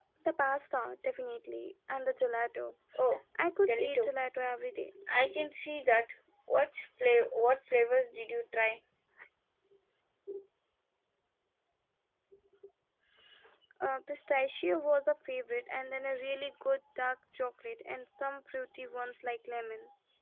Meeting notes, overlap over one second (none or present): none